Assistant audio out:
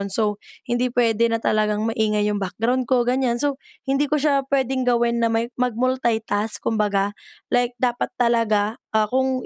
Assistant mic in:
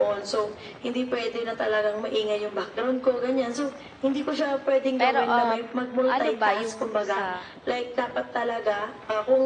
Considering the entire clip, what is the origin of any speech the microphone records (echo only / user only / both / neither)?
both